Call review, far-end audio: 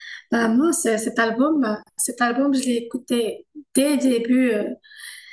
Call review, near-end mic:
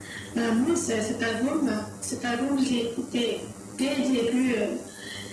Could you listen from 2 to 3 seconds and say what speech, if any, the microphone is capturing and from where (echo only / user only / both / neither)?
echo only